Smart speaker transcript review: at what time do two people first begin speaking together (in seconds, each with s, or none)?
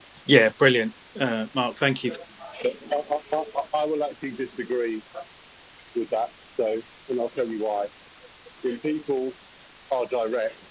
none